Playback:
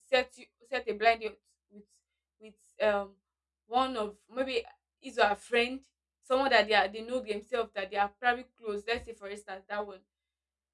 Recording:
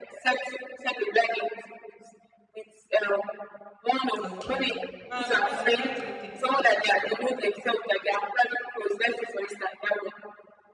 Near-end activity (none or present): present